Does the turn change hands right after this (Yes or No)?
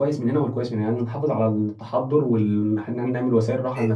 No